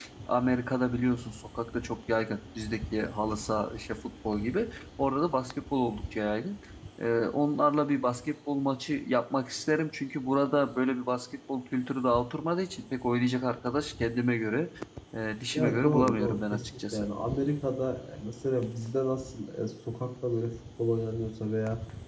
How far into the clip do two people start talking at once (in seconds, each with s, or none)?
15.5 s